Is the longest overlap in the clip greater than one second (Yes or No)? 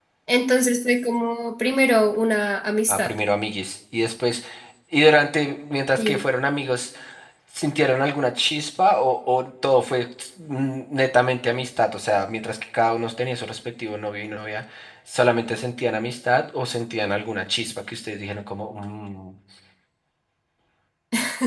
No